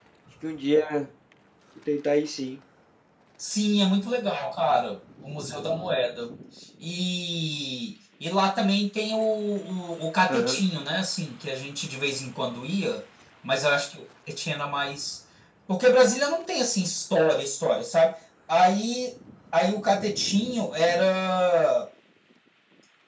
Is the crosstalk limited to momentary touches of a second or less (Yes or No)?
Yes